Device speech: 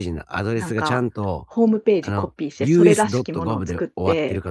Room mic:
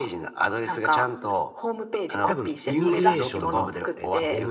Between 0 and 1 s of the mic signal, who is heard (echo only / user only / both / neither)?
echo only